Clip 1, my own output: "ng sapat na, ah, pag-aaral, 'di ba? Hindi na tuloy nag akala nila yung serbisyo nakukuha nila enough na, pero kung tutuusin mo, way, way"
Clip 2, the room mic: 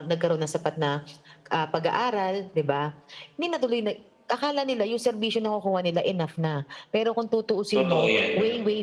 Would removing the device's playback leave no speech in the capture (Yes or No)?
No